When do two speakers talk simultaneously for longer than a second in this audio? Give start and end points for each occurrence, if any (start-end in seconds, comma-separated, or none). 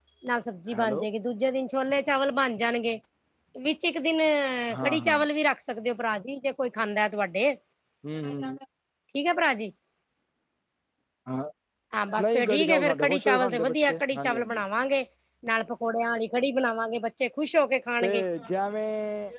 12.3-14.6